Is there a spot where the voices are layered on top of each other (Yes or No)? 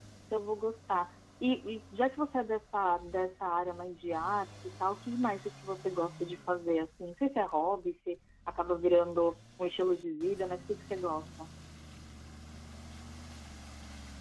No